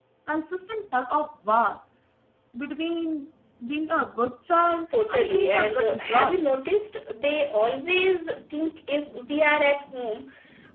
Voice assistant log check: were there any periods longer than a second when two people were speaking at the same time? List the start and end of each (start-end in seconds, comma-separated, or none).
5.1-6.4